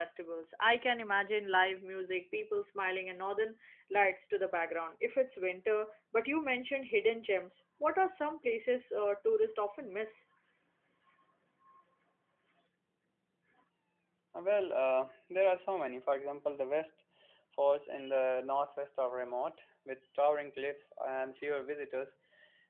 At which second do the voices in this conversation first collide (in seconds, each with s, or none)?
none